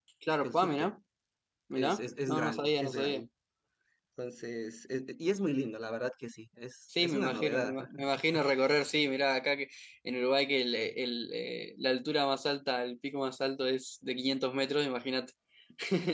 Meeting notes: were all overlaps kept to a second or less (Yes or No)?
No